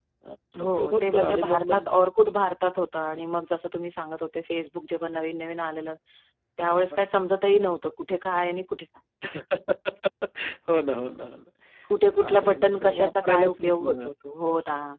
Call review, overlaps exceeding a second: present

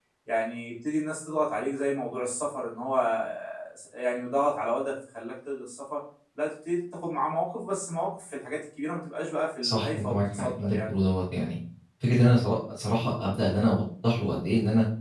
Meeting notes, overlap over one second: present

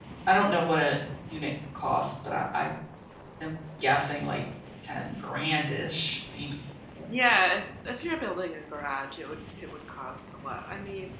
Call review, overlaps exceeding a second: none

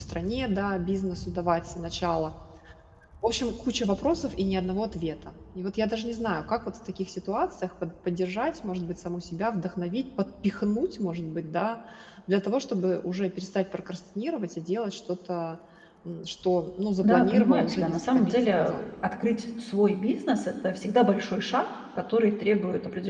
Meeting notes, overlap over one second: present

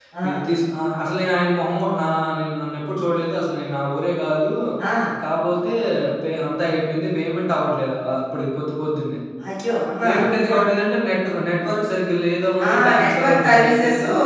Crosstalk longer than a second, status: present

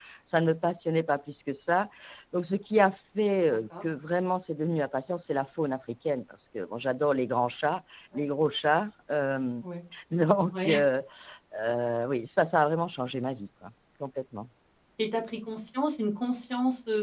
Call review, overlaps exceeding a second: none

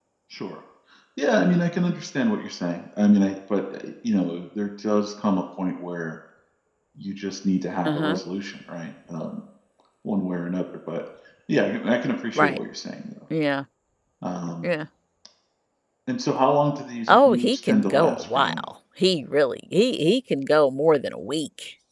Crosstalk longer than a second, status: present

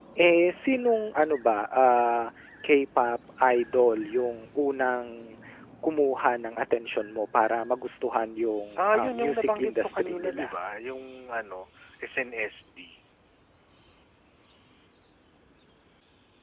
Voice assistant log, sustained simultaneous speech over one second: present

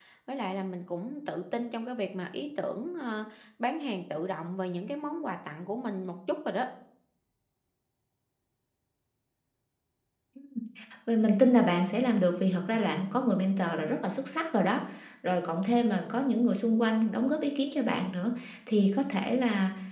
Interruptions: none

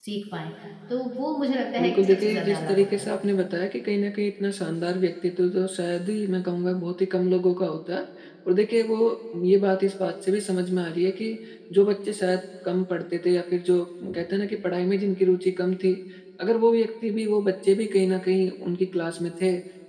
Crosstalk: present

